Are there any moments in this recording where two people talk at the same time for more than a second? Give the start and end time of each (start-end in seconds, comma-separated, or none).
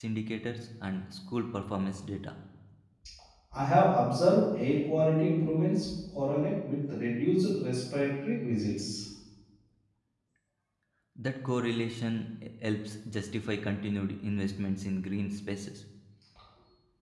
none